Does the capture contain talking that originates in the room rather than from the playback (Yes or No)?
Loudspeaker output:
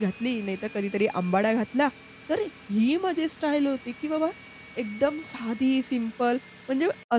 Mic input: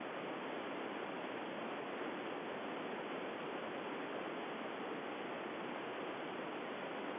No